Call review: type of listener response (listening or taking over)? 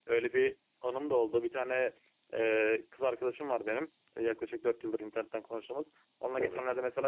listening